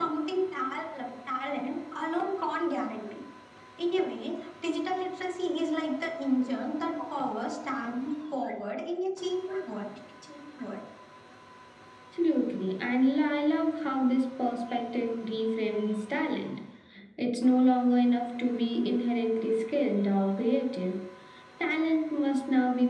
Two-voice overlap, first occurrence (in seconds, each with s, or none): none